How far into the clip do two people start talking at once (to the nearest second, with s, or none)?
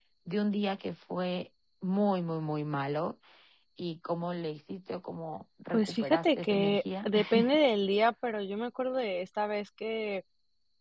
6 s